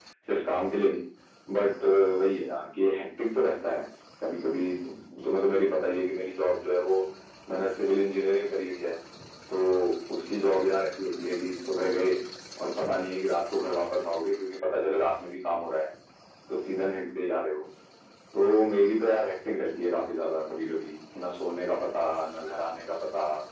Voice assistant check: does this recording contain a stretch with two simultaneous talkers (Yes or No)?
No